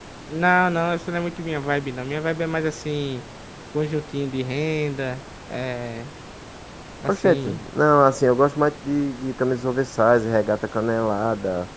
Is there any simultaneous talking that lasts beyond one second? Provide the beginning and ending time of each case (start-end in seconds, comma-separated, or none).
none